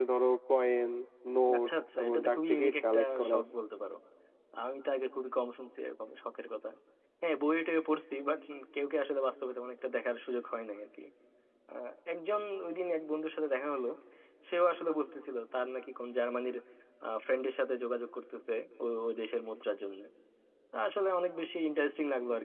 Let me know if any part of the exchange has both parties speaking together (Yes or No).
Yes